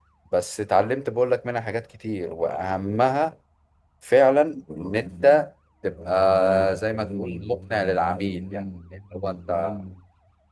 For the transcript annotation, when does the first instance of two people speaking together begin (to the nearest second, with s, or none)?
none